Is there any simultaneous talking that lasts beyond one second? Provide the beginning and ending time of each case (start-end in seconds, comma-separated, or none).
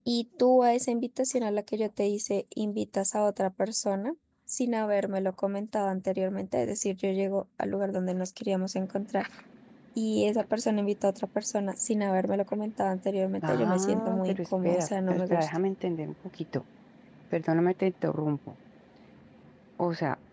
13.4-15.5